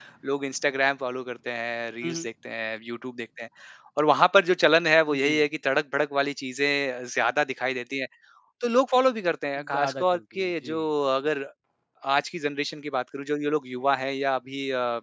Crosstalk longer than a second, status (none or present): present